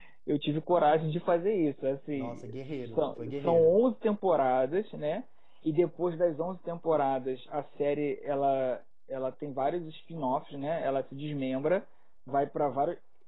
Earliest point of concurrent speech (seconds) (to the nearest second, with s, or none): 2 s